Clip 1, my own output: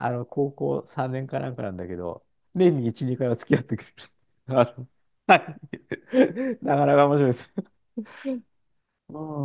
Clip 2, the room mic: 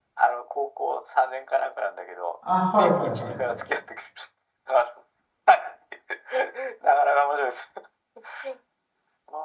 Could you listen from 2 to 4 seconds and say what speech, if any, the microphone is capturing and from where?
both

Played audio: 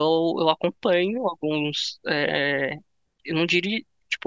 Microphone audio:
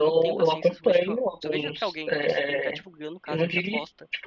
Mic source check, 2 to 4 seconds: both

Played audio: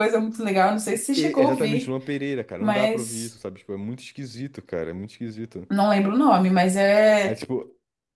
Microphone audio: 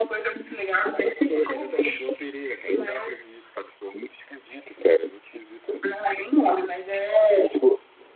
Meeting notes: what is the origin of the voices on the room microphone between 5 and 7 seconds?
echo only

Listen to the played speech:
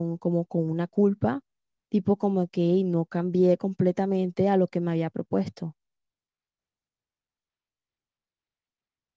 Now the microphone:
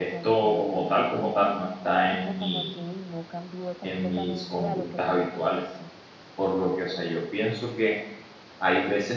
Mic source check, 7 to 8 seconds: user only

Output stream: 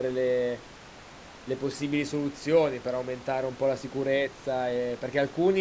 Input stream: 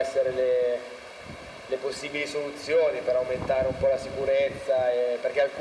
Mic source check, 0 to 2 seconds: echo only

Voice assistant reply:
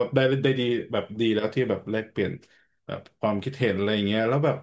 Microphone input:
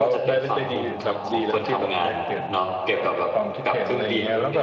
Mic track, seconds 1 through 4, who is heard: both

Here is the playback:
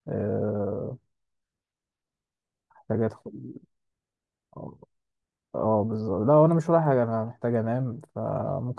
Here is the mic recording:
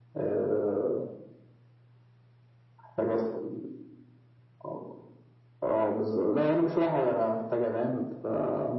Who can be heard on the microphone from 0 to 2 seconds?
echo only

